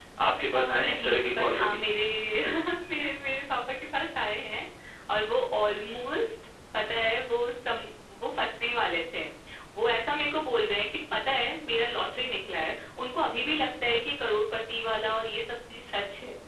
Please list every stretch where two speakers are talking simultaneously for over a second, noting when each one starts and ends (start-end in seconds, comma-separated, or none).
0.6-1.8